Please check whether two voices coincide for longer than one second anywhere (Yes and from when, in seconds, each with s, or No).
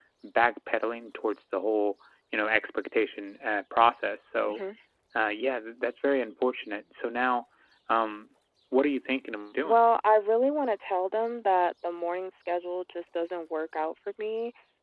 No